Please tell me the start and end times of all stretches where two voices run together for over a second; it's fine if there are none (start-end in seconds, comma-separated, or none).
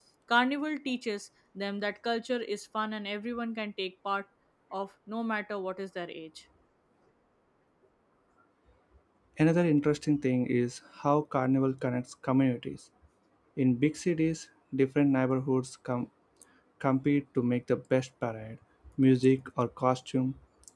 none